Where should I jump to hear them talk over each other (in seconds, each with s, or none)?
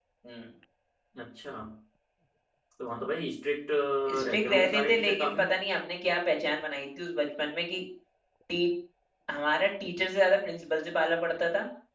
4.0 s